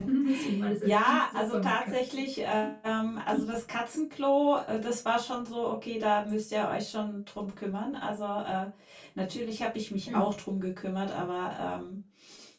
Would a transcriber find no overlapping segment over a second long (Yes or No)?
No